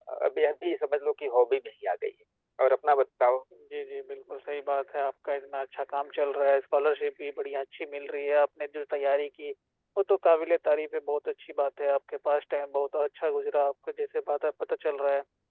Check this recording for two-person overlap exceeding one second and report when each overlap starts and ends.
none

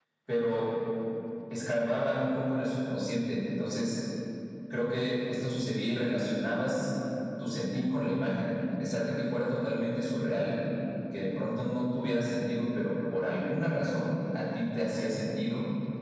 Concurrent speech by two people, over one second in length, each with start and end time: none

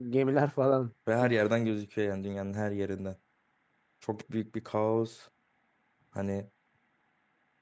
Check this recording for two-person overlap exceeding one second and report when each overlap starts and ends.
none

